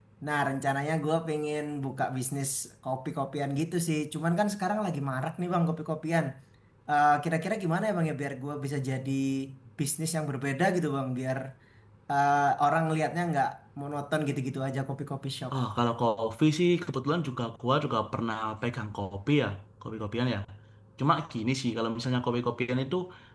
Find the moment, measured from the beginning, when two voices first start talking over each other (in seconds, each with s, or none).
none